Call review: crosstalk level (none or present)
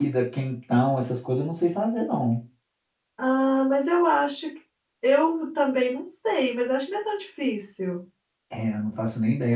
none